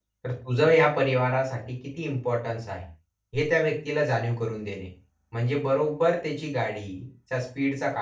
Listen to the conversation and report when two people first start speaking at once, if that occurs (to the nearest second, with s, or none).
none